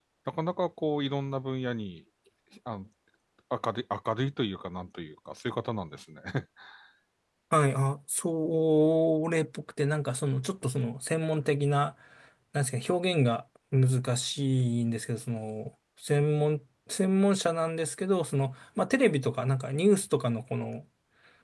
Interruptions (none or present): none